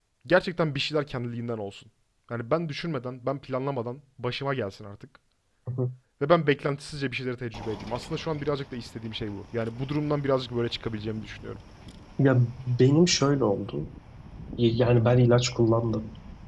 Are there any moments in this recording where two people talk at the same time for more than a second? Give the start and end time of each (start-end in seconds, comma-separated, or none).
none